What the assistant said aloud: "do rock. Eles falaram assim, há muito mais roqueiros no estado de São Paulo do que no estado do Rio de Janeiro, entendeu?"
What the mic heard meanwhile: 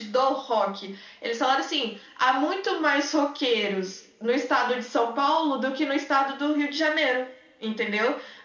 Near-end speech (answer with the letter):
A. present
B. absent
B